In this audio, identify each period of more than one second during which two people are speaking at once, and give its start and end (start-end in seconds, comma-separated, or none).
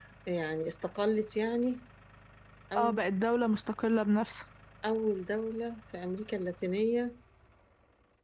none